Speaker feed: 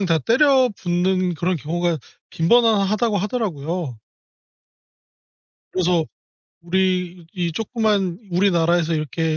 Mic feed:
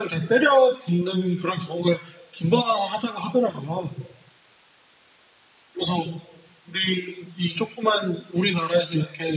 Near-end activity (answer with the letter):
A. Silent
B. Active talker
A